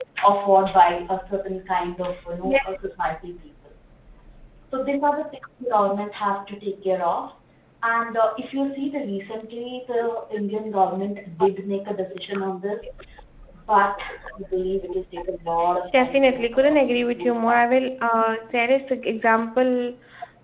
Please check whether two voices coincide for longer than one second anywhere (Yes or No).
Yes